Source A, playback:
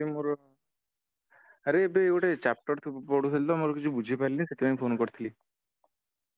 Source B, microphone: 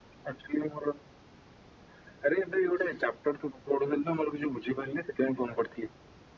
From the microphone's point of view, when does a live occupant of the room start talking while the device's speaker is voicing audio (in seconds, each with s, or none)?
none